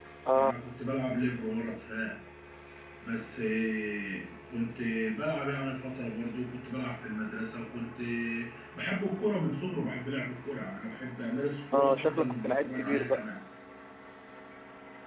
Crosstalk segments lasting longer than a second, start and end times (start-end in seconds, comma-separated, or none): 11.7-13.3